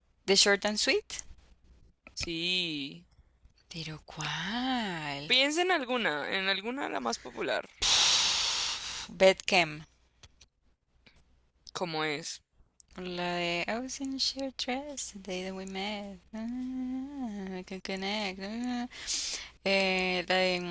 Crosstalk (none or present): none